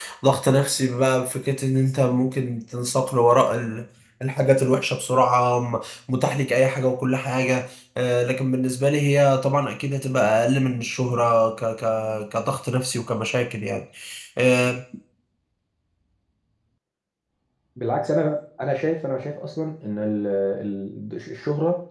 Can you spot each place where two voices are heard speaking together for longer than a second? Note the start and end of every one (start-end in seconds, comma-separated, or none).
none